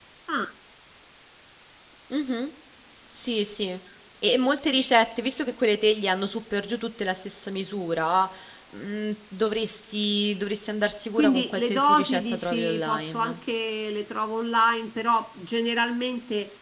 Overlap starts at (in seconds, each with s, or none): 11.2 s